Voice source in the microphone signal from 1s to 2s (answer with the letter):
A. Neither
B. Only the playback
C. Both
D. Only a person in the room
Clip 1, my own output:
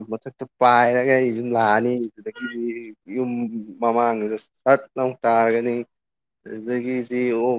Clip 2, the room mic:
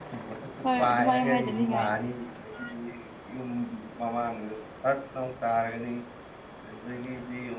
C